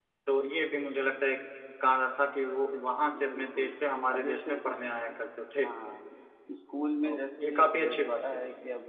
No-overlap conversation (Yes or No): No